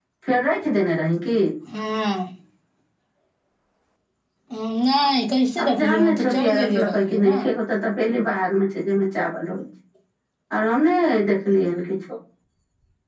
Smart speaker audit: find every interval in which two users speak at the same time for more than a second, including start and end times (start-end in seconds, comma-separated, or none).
5.6-7.4